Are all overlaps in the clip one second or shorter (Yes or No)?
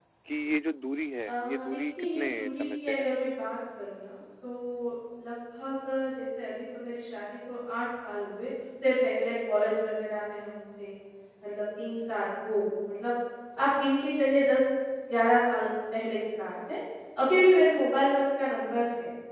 No